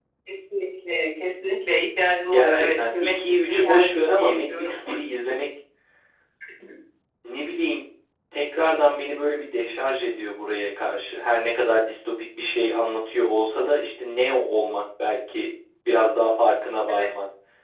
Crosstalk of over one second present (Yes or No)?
Yes